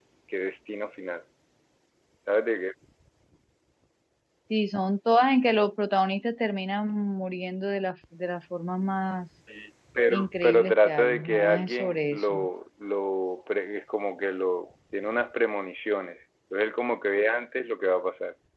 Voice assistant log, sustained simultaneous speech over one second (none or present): present